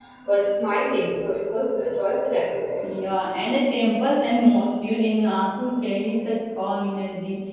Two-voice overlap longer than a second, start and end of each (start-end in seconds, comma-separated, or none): none